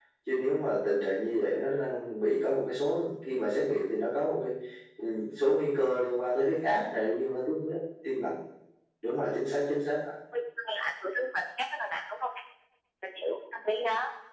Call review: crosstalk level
none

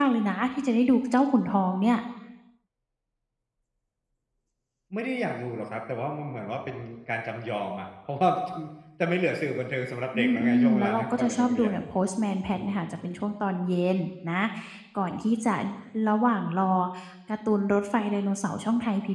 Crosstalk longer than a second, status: present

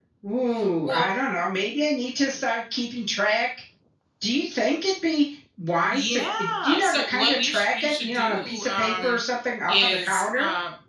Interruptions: present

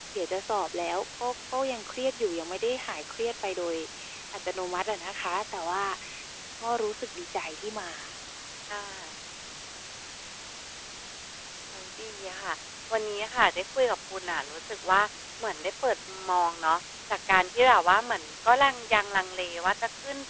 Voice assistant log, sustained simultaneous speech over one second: none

